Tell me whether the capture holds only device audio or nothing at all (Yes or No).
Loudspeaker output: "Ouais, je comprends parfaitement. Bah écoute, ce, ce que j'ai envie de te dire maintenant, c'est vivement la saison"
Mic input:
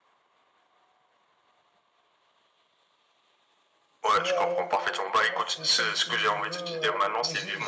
No